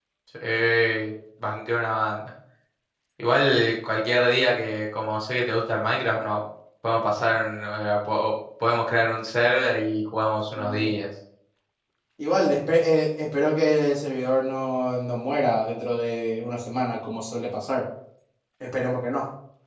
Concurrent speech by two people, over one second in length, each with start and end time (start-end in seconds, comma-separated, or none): none